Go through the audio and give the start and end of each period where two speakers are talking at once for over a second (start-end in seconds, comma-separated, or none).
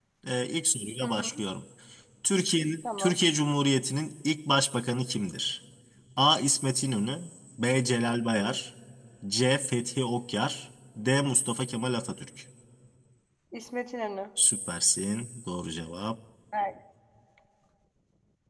none